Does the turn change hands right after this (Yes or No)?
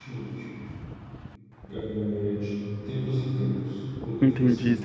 Yes